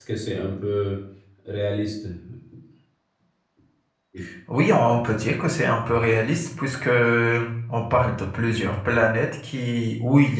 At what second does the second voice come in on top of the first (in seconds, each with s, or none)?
none